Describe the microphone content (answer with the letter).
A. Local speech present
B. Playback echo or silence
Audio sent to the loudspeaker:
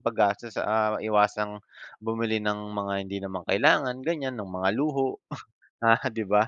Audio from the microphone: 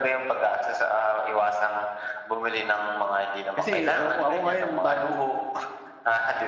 A